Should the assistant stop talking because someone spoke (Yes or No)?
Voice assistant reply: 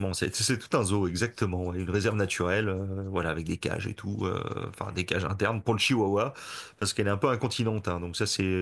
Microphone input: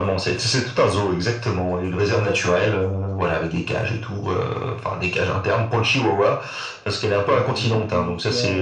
Yes